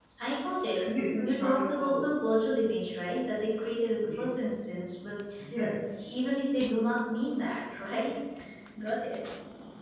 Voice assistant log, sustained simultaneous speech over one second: present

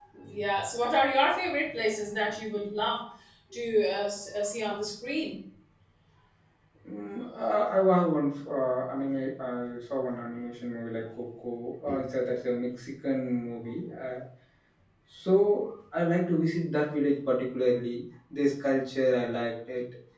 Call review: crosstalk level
none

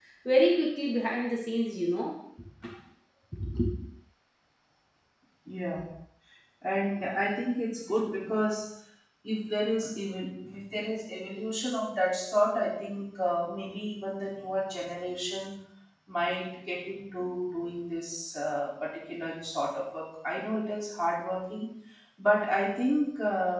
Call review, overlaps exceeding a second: none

